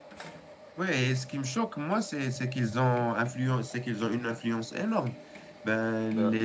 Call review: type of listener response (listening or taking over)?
listening